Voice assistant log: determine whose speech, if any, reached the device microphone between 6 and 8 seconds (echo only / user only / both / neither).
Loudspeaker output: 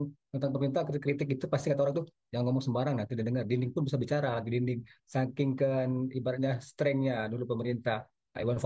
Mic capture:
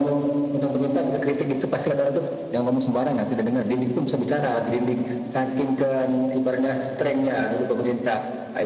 echo only